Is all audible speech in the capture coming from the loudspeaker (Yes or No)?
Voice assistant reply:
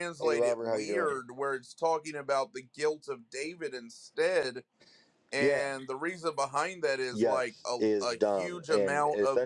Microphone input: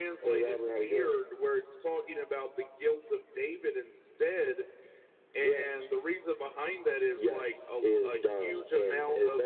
Yes